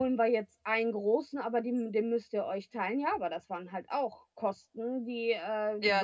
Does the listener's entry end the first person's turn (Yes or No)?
No